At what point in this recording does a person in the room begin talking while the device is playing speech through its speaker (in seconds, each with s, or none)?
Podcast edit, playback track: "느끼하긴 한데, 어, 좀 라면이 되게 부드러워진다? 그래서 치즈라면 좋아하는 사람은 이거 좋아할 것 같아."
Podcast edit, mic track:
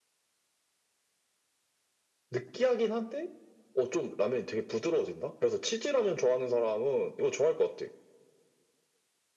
none